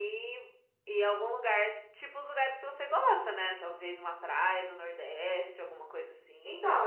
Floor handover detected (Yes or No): Yes